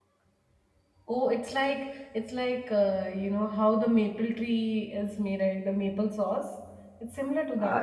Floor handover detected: Yes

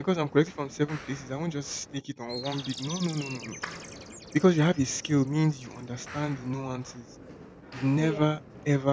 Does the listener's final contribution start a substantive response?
No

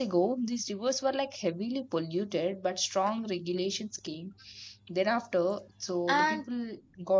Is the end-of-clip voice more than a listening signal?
No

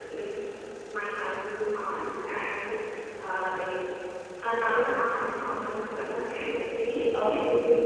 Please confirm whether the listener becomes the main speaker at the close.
No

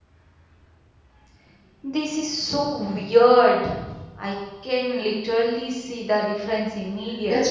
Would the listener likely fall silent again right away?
No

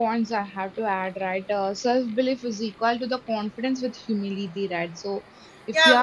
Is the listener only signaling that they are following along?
No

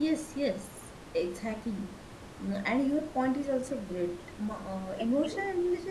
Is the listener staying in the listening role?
Yes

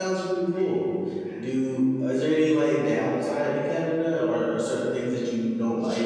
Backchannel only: No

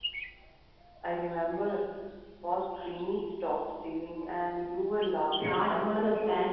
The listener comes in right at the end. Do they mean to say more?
Yes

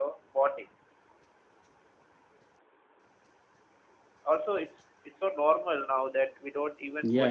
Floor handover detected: Yes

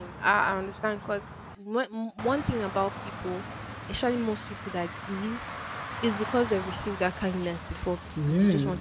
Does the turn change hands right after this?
Yes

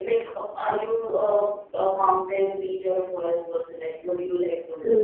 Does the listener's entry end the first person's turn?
Yes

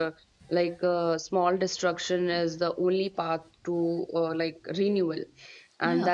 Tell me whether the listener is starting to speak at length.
No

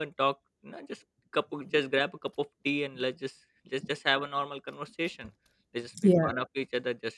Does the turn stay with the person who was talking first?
Yes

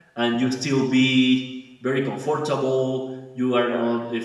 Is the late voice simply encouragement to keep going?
Yes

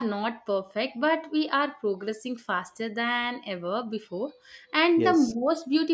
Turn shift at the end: No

